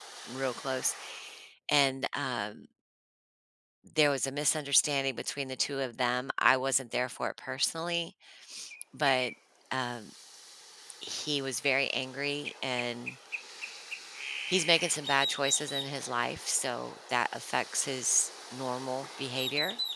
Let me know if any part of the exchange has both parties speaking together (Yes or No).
No